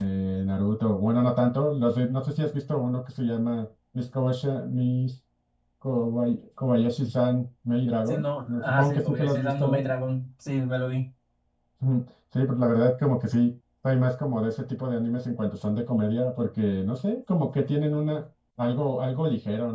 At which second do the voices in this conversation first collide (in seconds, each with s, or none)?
8.1 s